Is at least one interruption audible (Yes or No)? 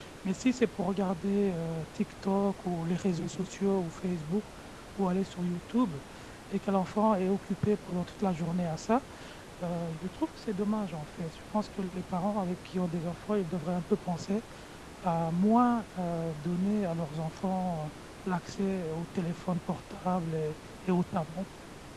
No